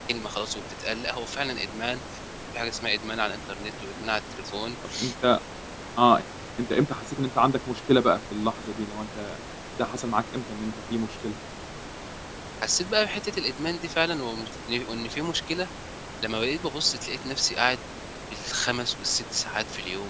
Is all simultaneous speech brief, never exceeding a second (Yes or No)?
Yes